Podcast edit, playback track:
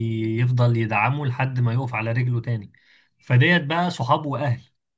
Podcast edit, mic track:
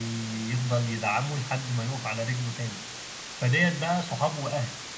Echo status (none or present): present